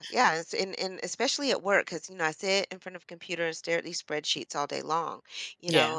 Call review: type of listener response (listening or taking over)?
listening